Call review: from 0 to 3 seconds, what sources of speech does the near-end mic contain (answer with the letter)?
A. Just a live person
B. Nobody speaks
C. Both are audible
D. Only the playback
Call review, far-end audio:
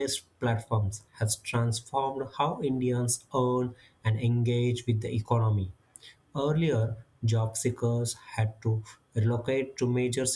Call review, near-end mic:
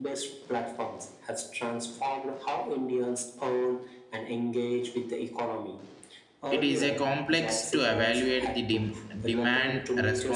D